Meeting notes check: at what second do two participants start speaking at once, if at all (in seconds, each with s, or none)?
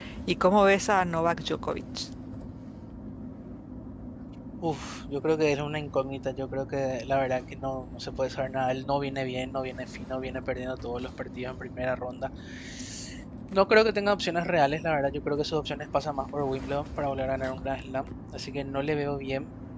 none